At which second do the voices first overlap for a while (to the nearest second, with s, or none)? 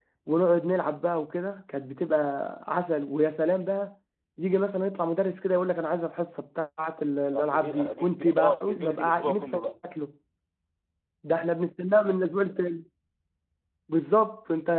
7 s